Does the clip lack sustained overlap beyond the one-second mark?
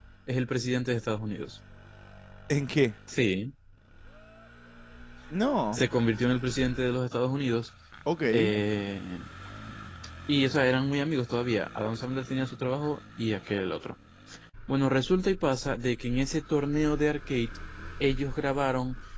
Yes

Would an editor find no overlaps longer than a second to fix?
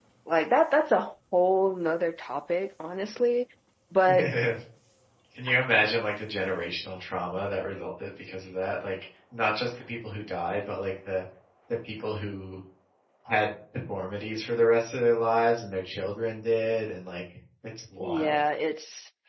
Yes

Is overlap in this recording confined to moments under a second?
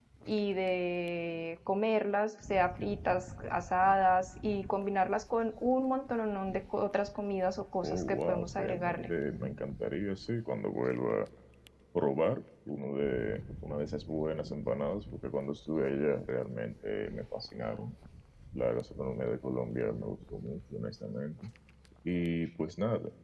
No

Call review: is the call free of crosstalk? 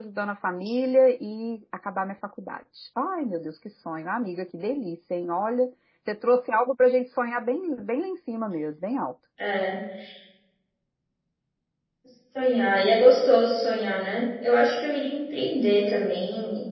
Yes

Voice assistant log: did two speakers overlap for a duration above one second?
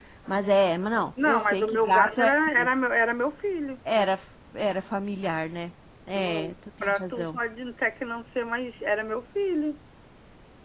Yes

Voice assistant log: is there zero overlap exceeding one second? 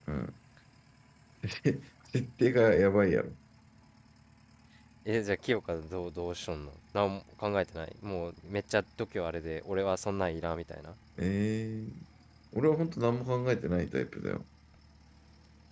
Yes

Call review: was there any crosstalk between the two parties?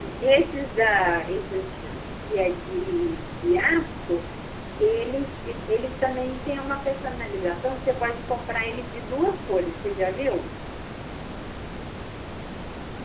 No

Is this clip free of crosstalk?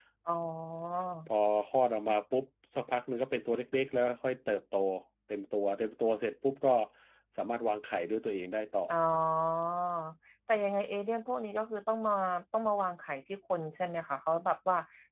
Yes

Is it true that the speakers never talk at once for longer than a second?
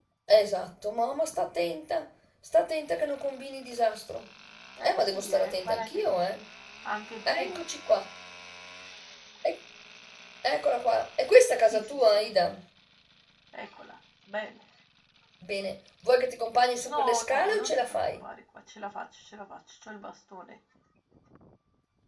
No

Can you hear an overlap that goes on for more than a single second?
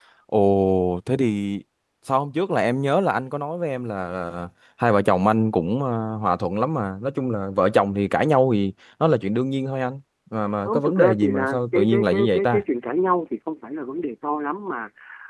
Yes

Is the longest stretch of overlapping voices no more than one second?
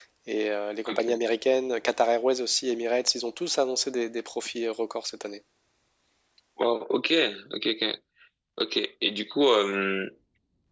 Yes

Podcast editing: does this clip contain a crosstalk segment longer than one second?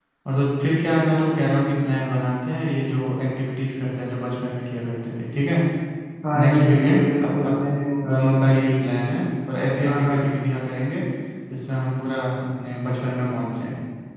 Yes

